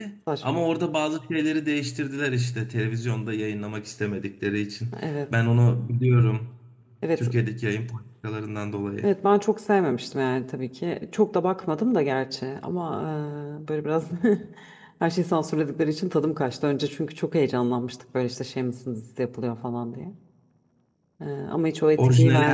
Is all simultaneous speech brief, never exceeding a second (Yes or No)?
Yes